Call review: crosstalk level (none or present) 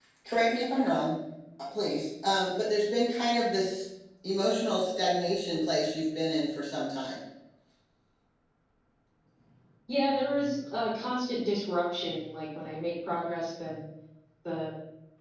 none